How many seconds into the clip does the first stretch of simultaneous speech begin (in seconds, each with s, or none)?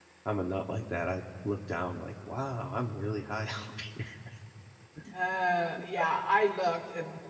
none